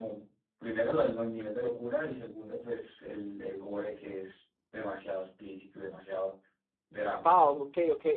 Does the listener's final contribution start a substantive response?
Yes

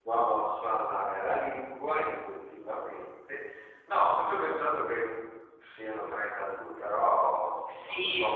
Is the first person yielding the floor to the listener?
Yes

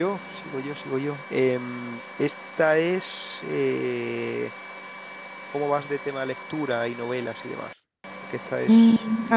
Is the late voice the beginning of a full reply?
Yes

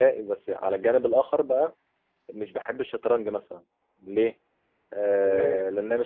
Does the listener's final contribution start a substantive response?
No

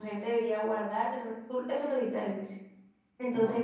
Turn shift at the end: No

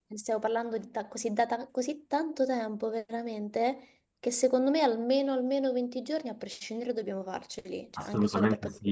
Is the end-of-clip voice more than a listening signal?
Yes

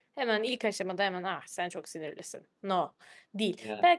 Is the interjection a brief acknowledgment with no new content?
Yes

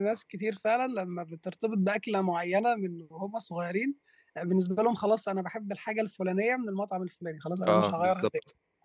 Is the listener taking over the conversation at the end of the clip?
Yes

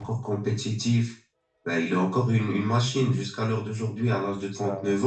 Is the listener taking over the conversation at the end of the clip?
No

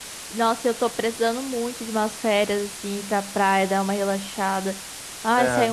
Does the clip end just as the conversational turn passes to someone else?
No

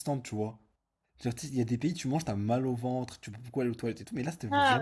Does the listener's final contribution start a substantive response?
Yes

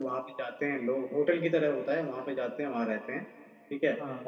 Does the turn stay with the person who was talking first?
Yes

